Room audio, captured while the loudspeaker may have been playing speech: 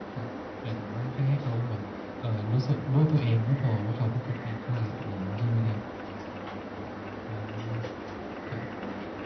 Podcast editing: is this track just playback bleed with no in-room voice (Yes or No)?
Yes